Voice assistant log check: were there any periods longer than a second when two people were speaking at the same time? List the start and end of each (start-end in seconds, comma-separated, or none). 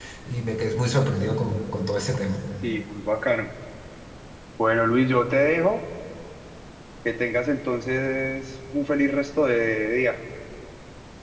none